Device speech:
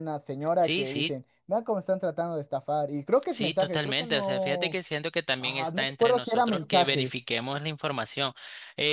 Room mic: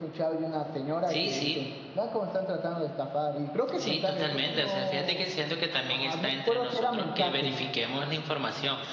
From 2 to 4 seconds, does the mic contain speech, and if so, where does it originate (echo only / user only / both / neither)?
echo only